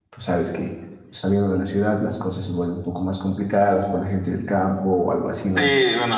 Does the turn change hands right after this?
Yes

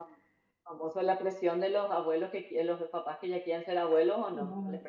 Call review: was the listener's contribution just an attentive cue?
No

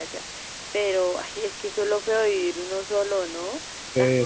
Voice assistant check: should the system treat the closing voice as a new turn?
Yes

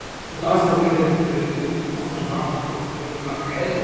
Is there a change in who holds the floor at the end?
Yes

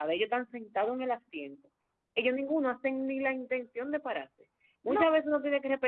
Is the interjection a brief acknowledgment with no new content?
Yes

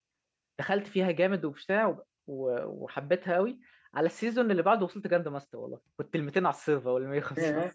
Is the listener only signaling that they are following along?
Yes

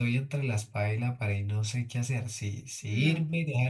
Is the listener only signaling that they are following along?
Yes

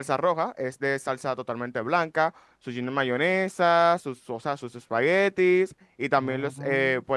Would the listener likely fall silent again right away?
Yes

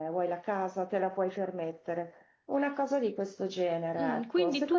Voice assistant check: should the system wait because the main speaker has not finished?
No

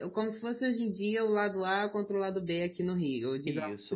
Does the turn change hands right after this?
Yes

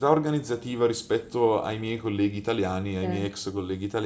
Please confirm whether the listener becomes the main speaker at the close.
No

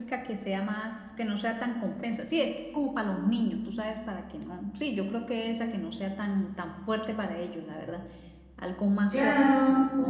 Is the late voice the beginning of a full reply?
Yes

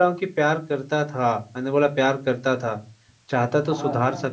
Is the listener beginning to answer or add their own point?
No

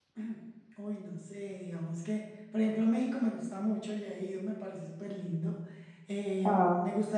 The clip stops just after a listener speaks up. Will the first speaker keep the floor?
Yes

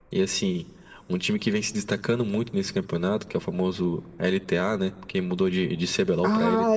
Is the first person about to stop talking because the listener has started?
Yes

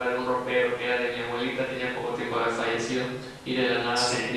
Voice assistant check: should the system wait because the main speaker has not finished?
Yes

